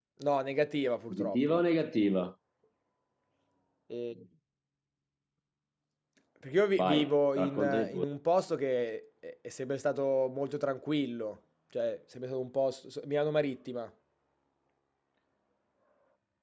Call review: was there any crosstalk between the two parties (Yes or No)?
Yes